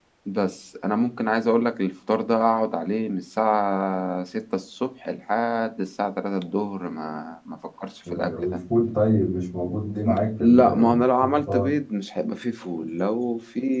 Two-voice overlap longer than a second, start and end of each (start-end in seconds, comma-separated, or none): 10.1-11.7